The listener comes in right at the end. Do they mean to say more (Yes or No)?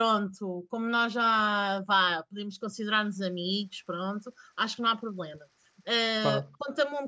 No